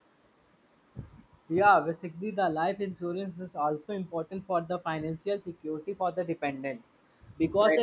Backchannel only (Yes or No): Yes